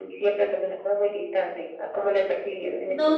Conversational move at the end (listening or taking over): taking over